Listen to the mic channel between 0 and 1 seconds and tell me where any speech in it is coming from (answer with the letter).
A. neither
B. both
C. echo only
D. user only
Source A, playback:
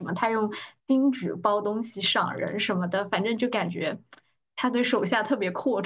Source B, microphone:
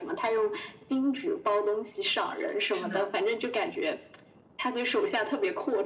C